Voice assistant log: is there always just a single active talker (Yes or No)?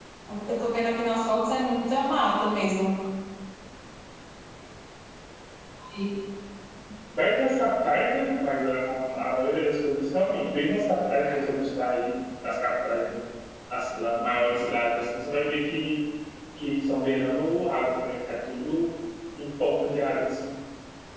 Yes